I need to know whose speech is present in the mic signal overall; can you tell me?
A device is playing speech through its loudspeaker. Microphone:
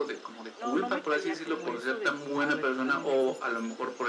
both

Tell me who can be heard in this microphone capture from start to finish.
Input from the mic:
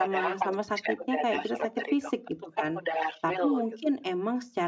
both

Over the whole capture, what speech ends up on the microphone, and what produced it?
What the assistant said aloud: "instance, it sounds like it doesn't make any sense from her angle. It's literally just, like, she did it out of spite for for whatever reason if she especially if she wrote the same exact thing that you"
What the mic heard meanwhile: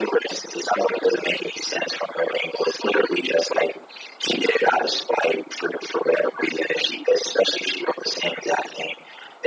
echo only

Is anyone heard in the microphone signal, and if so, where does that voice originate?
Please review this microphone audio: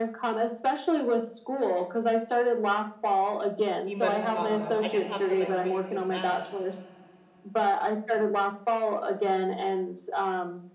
both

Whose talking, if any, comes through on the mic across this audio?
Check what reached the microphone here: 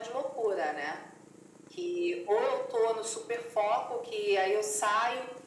echo only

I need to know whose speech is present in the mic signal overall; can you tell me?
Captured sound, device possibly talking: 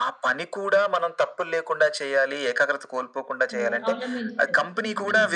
both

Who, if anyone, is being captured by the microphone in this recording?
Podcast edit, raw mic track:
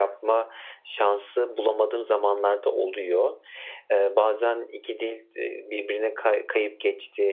echo only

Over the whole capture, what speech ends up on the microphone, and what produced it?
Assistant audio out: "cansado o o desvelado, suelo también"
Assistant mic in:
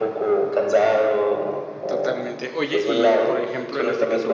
both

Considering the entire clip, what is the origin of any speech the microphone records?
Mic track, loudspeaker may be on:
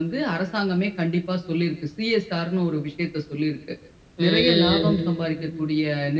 both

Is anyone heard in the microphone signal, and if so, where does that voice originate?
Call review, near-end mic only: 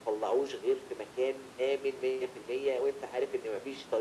echo only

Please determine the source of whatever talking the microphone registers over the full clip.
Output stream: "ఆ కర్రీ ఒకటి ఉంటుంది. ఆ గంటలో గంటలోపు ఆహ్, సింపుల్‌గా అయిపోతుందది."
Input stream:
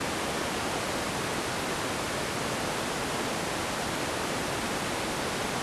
neither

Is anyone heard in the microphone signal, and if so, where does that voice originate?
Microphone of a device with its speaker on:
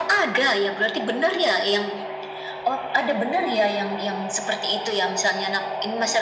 echo only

